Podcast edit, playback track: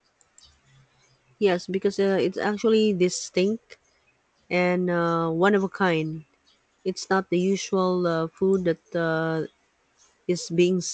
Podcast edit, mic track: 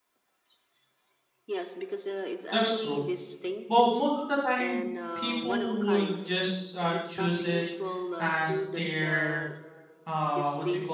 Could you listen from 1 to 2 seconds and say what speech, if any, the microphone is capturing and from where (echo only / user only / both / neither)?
echo only